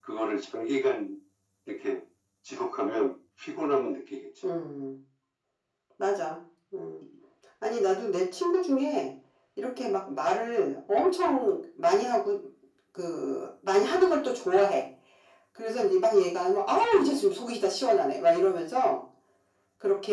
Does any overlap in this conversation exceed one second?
No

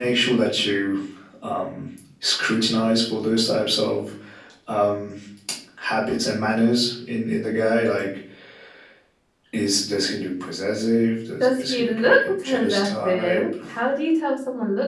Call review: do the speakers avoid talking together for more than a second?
No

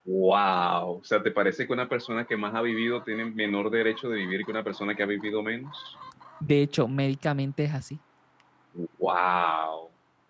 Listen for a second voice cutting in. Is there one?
No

